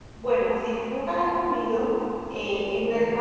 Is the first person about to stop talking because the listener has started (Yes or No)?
No